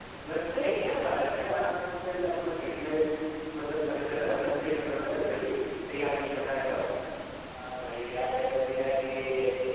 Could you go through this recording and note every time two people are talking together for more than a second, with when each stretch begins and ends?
none

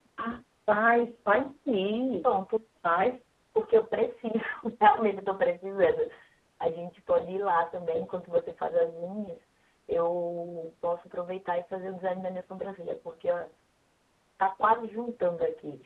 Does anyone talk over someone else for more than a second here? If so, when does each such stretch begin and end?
none

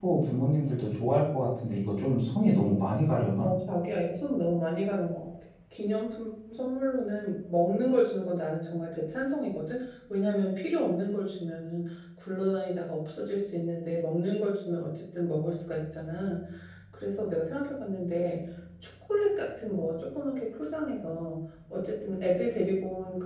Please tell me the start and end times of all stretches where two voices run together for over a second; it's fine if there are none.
none

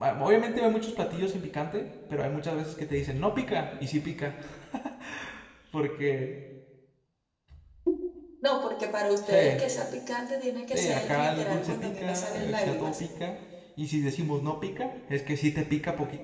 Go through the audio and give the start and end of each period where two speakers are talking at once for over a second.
10.7-13.0

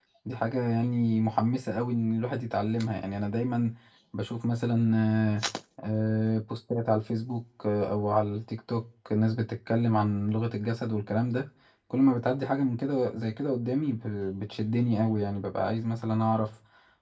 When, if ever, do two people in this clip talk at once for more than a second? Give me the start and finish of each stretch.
none

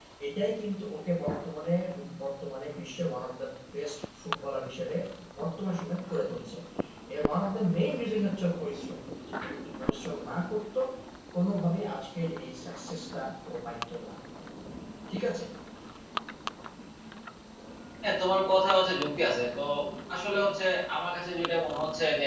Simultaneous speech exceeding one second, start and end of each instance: none

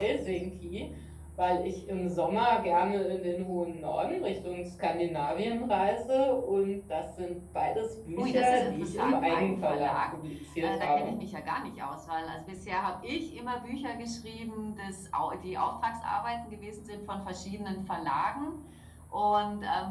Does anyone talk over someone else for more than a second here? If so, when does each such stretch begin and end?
8.2-10.2

